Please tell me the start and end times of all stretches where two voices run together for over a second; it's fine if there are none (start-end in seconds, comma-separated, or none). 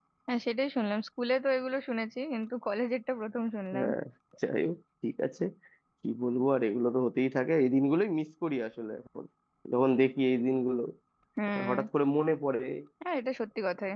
none